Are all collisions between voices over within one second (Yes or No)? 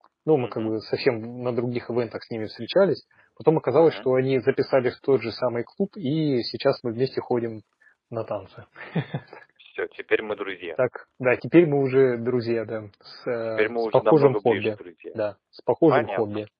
No